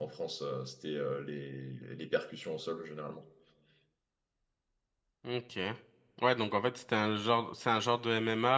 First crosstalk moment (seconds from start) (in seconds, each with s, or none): none